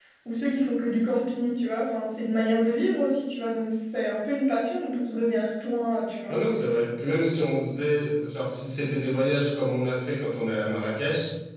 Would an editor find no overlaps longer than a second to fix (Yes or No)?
Yes